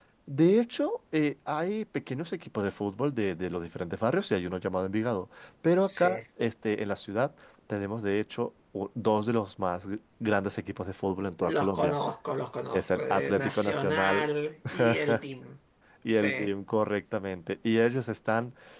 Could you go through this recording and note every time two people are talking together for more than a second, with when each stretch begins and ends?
12.7-14.3

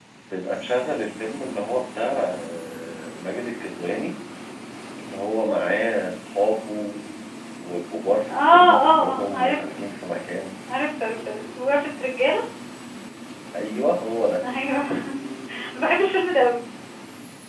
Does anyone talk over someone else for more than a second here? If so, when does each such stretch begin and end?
8.3-9.8

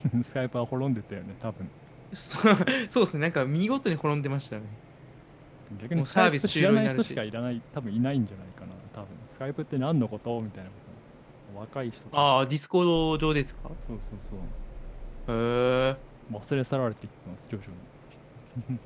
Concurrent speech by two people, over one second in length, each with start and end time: 6.0-7.2

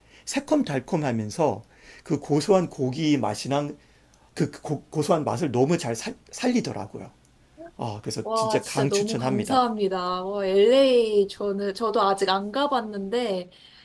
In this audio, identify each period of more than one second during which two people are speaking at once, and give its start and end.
8.4-9.6

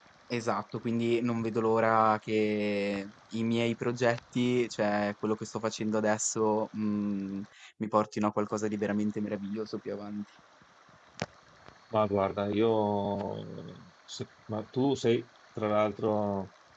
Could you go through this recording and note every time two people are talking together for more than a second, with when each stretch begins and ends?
none

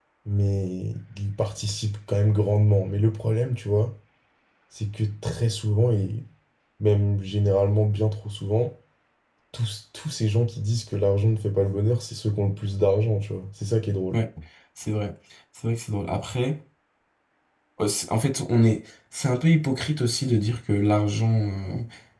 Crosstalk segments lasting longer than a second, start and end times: none

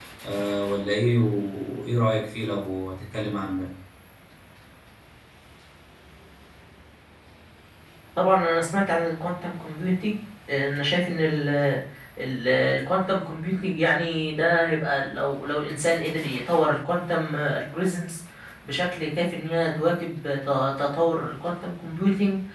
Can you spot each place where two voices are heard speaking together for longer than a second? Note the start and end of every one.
none

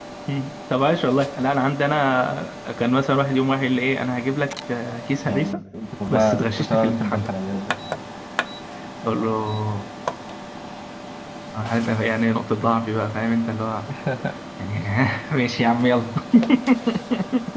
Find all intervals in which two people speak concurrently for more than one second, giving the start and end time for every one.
6.1-7.3

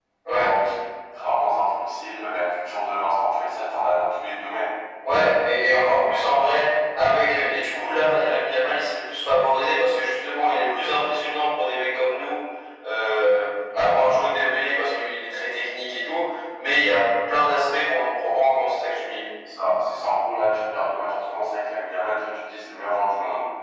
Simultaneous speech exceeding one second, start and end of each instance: none

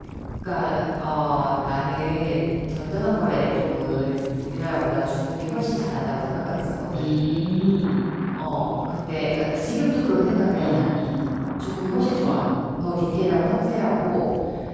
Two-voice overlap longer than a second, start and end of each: none

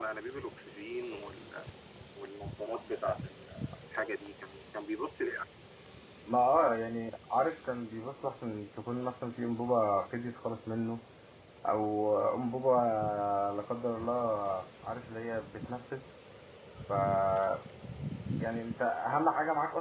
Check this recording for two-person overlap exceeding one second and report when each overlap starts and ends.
none

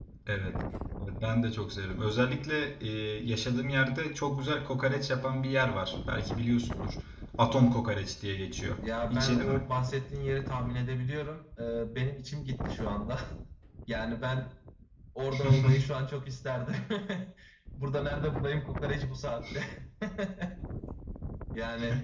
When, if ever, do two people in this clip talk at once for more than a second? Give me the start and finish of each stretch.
none

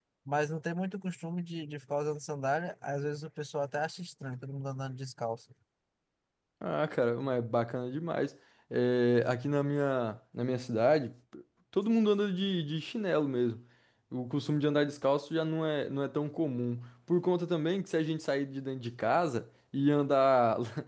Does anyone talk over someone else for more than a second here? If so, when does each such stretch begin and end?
none

